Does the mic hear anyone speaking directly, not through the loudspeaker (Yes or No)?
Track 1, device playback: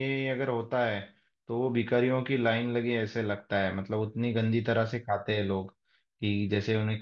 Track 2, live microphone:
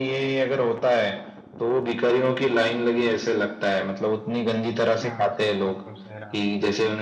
Yes